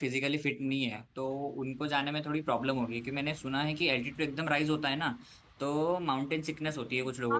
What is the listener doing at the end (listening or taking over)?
taking over